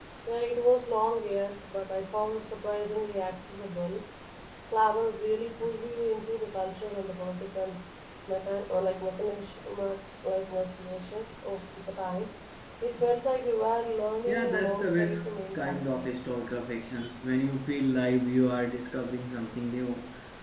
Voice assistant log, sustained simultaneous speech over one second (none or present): present